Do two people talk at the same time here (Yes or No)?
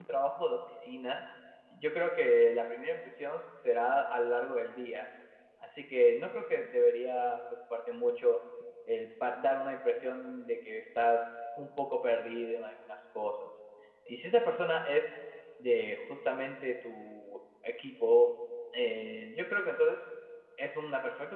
No